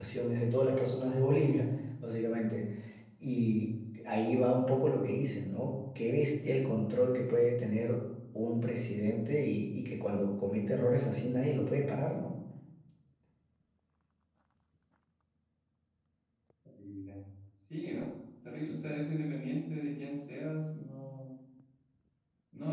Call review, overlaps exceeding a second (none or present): none